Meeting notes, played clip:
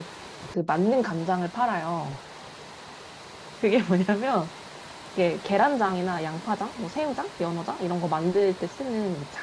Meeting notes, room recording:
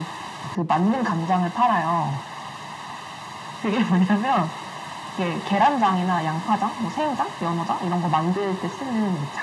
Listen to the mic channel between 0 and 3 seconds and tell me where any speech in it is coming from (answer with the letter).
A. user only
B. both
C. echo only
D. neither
C